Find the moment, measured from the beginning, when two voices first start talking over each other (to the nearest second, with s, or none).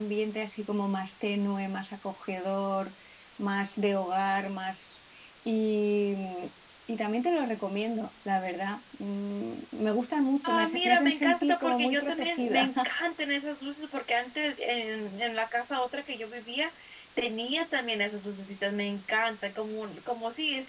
10 s